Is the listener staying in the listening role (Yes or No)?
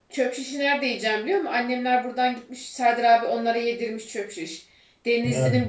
Yes